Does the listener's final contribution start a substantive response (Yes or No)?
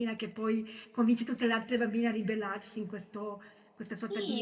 Yes